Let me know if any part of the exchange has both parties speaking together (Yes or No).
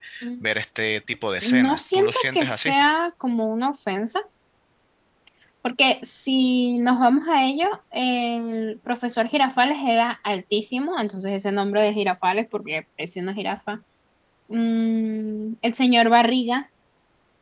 Yes